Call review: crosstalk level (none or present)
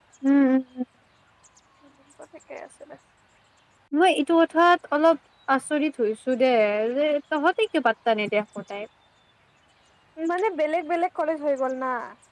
none